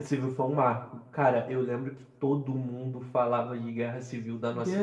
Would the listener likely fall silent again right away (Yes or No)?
No